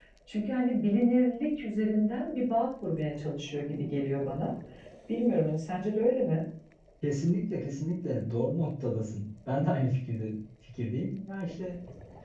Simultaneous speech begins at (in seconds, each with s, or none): none